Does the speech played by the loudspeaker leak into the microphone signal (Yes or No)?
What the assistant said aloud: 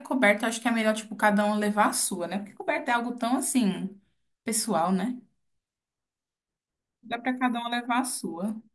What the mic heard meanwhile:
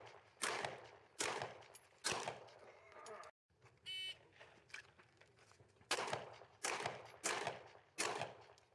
No